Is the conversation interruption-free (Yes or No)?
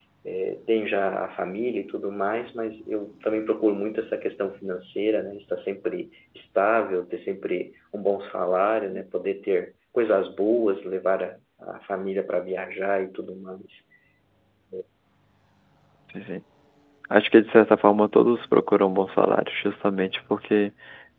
Yes